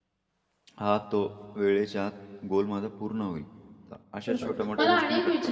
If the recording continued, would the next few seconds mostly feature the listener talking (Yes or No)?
Yes